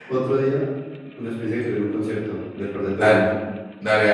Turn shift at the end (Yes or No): Yes